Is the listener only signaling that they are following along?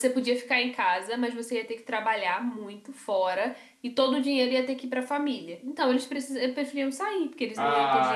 No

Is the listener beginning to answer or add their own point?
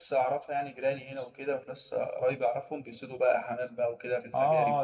Yes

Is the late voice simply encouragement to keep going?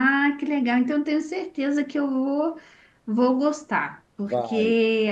Yes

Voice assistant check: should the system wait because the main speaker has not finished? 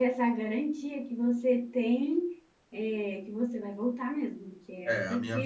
No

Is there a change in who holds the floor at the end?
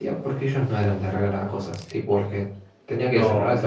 Yes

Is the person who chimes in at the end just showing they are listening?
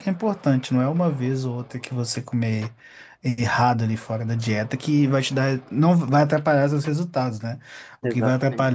Yes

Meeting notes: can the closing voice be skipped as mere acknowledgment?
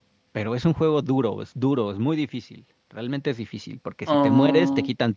Yes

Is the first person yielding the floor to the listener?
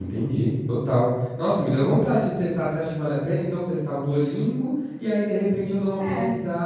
No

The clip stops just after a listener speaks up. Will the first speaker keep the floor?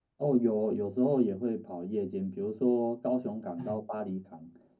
Yes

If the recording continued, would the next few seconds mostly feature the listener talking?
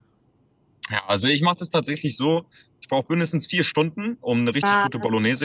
No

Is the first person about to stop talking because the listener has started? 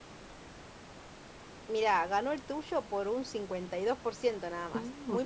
Yes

